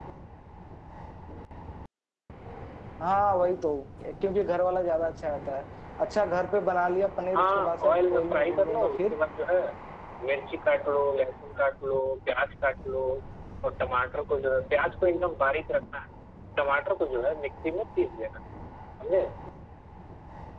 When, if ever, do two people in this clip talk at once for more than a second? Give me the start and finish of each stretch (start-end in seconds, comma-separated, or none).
7.3-9.2